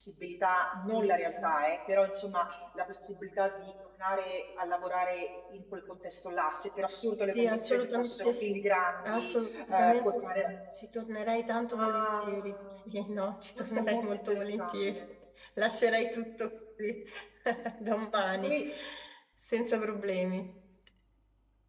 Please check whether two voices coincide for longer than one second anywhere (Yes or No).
Yes